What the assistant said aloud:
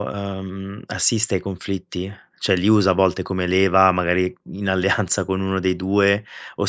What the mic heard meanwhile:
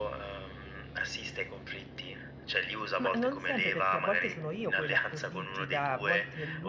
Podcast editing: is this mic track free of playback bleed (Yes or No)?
No